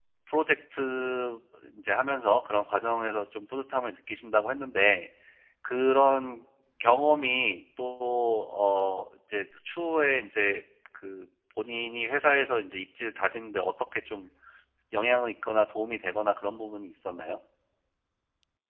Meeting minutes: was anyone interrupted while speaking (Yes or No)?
No